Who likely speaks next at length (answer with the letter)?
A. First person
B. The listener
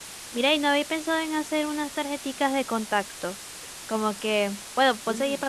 A